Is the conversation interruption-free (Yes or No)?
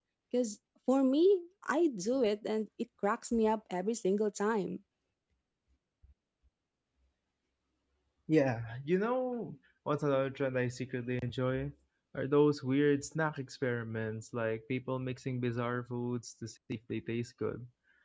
Yes